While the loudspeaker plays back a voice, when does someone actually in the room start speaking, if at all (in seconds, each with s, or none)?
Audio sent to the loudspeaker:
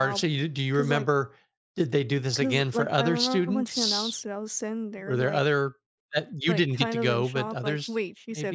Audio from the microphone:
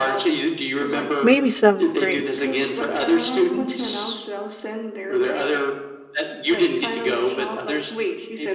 1.2 s